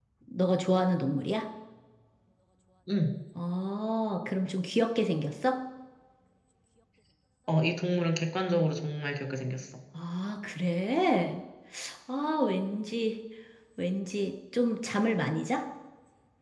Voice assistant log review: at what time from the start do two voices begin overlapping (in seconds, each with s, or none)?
none